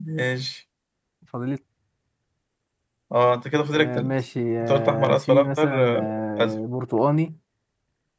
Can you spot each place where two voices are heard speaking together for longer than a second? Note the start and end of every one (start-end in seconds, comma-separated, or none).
4.6-6.1